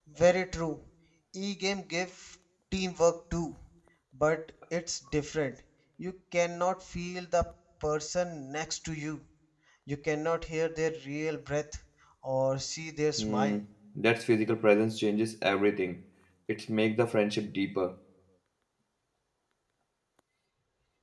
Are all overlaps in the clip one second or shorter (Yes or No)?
Yes